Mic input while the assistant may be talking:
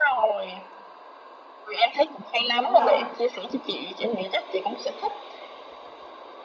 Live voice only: rồi

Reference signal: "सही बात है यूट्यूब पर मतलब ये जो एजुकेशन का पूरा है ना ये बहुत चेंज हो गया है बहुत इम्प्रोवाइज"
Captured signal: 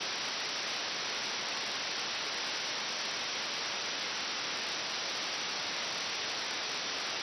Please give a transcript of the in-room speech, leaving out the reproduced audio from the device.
none

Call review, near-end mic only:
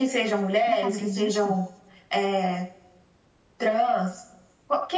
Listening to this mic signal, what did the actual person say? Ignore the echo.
na cadeira de gestão.

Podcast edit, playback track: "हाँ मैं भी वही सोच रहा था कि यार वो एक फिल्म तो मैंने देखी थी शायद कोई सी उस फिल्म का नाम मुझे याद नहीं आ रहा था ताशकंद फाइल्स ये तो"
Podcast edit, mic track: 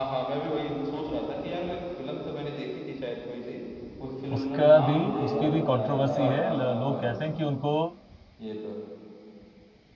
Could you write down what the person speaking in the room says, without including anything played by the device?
उसका भी उसकी भी कंट्रोवर्सी है ल- लोग कहते हैं कि उनको

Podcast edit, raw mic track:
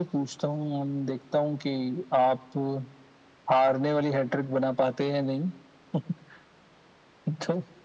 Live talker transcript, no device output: none

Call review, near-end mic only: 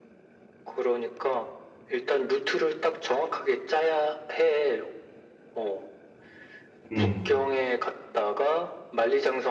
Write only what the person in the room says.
음.

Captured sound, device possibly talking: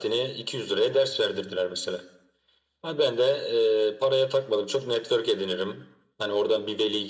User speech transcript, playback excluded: none

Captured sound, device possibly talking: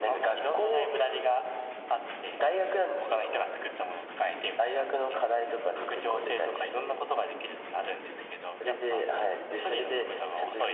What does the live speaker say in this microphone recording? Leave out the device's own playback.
none

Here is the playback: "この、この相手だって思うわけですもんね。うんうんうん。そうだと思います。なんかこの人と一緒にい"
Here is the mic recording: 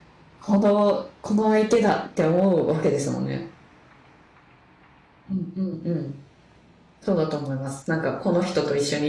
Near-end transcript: none

